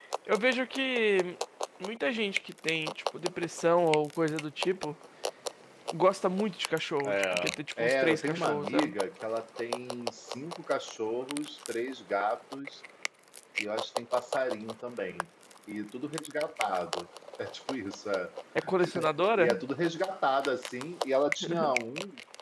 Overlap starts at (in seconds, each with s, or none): 7.0 s